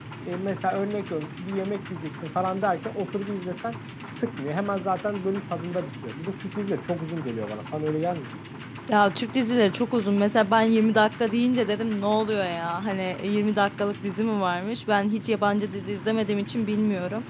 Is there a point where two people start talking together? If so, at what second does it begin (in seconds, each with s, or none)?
none